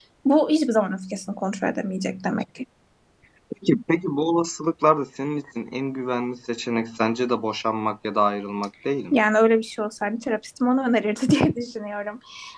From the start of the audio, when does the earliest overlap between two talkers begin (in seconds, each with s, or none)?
none